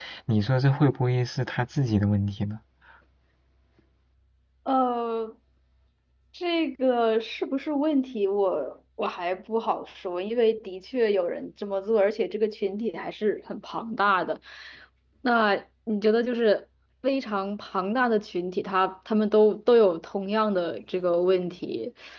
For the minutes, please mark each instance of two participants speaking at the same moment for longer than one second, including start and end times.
none

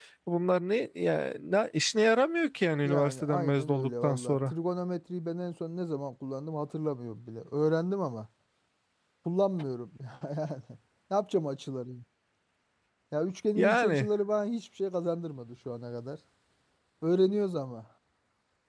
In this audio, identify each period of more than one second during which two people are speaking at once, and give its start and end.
2.8-4.5

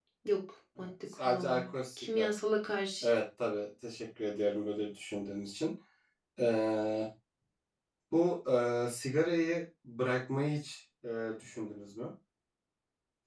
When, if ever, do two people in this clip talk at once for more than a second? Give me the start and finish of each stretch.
0.8-2.3

